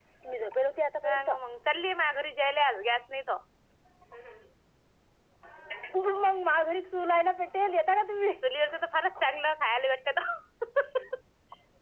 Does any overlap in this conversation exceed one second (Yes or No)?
No